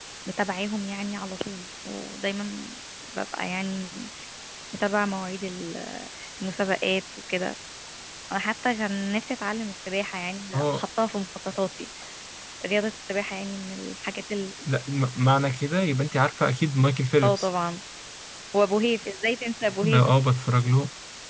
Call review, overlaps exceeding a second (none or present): none